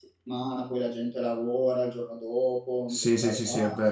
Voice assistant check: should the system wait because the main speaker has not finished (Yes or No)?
No